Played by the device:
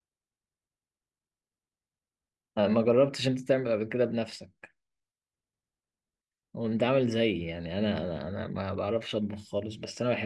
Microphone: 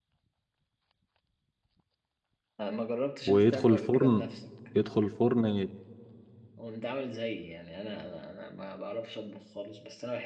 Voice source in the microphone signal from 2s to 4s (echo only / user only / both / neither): both